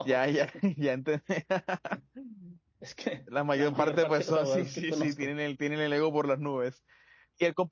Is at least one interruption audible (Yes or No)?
Yes